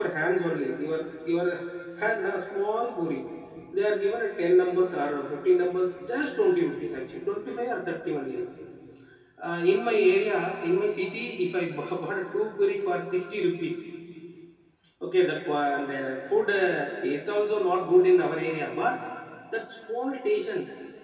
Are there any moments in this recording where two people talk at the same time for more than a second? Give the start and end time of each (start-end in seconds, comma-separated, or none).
none